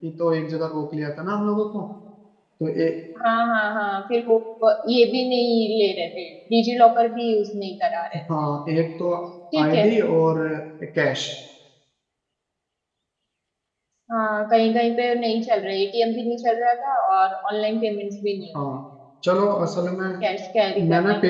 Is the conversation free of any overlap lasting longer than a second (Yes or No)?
Yes